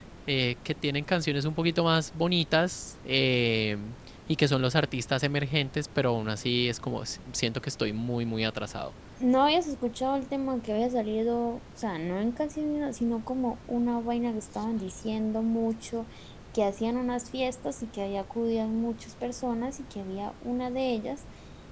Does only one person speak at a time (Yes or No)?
Yes